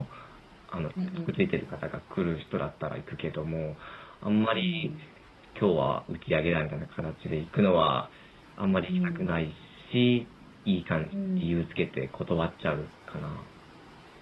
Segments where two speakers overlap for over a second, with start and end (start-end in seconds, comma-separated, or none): none